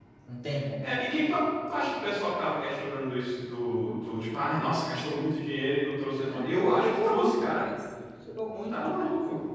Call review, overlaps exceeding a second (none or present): present